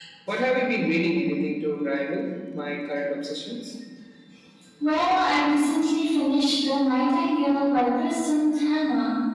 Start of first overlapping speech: none

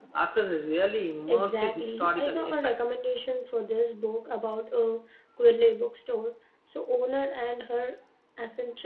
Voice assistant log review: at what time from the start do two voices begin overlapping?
1.3 s

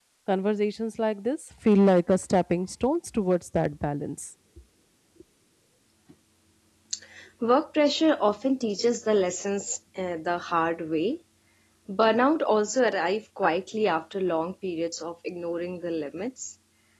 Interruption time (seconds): none

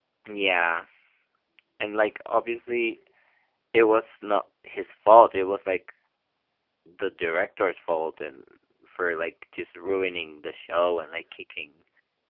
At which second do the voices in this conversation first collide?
none

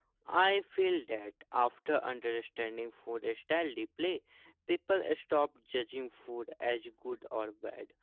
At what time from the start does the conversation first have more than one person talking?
none

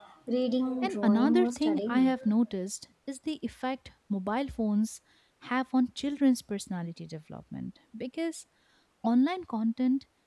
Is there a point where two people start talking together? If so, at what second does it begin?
0.8 s

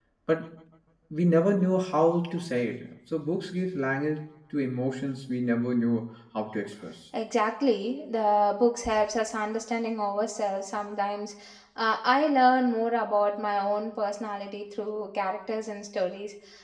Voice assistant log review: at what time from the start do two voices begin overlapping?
none

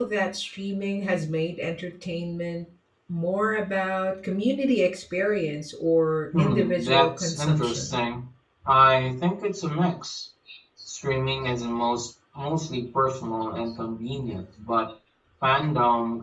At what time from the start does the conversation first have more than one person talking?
6.3 s

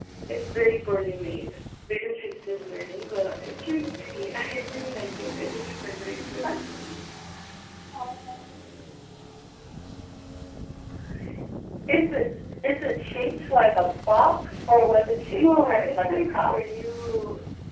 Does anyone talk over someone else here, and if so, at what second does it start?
15.3 s

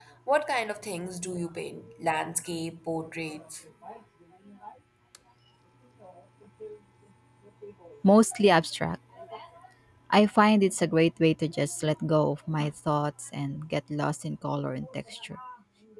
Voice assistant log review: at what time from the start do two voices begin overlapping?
none

